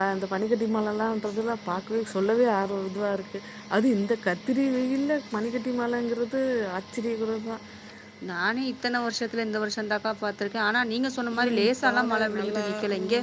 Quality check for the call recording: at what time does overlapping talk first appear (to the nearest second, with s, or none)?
11 s